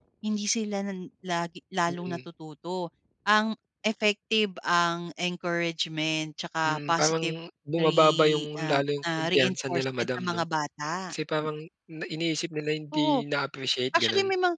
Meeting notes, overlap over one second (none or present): present